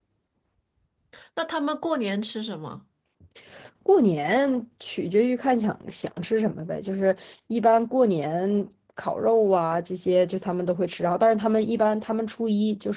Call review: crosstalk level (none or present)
none